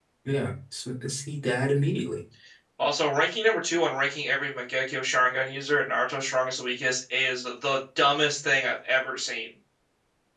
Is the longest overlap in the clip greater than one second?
No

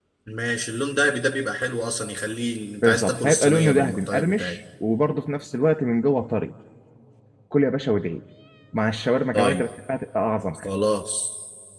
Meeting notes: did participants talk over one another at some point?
Yes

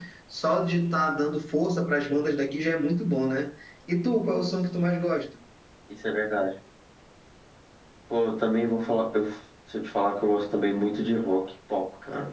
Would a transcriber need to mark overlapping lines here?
No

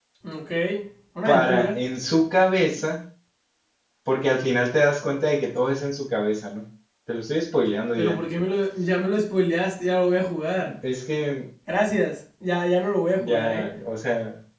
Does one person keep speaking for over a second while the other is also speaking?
No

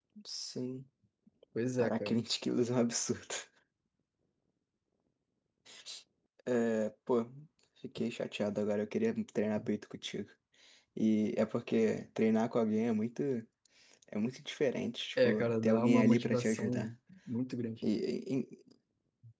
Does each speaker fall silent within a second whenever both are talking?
No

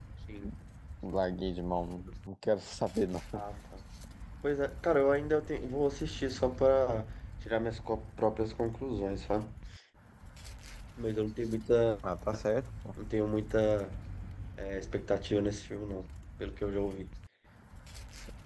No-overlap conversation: Yes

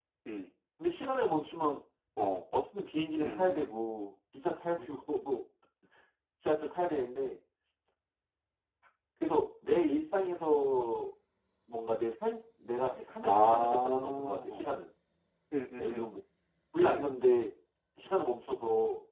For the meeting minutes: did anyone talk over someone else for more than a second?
Yes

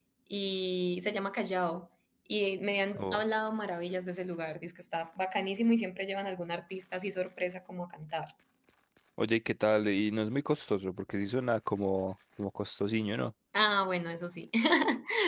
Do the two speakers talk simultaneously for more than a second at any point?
No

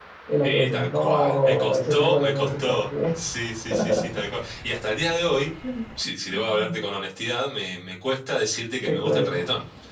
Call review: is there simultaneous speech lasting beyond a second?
Yes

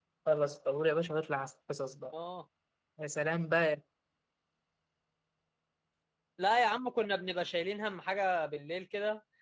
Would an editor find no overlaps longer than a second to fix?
Yes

